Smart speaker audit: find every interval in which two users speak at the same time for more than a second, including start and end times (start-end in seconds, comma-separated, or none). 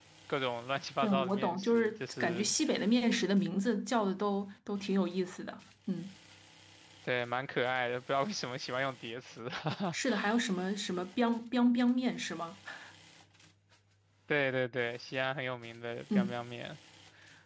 1.0-2.5